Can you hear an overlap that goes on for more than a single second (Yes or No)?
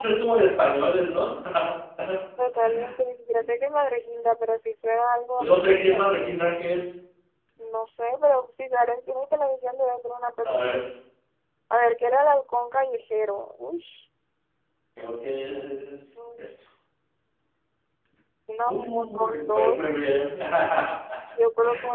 Yes